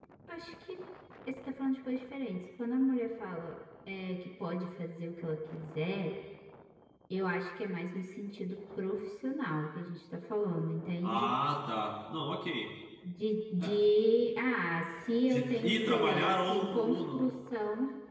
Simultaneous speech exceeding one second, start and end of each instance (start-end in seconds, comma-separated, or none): 15.3-17.3